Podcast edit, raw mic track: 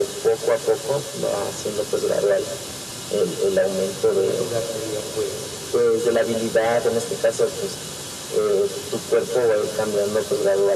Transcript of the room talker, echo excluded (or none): en primer lugar, sería, pues,